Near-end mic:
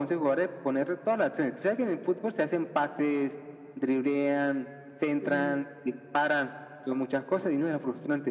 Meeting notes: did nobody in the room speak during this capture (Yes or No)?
No